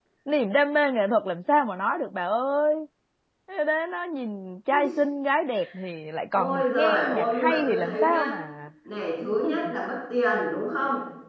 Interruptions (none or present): present